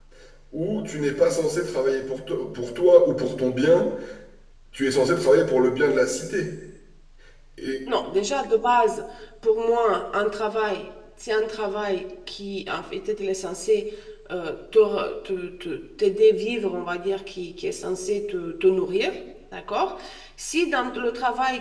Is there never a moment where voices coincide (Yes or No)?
Yes